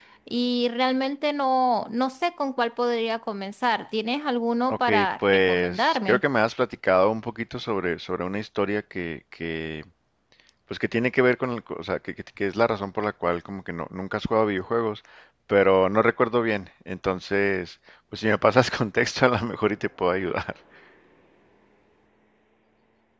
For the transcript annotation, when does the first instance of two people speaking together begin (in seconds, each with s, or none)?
4.7 s